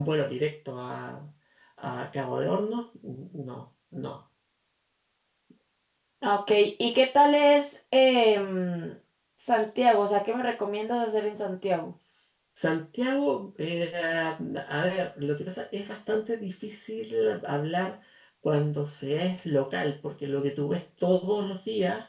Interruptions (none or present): none